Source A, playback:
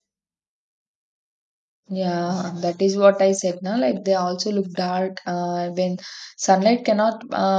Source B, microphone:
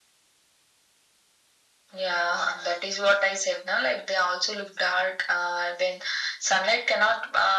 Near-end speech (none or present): none